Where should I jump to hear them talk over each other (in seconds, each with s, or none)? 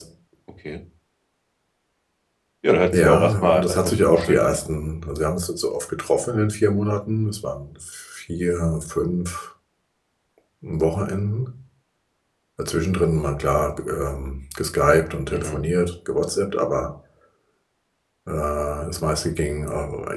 2.9 s